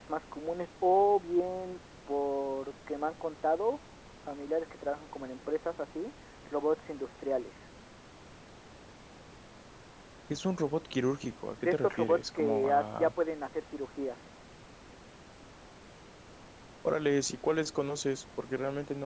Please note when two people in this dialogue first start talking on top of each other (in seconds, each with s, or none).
11.6 s